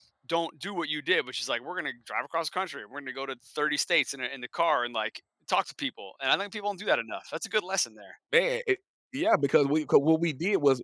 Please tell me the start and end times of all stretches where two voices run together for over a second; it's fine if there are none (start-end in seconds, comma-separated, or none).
none